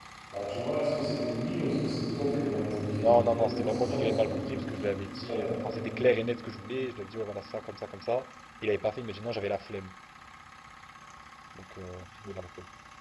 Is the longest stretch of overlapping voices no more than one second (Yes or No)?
No